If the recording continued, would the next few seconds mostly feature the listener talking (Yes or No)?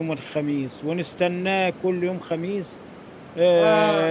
No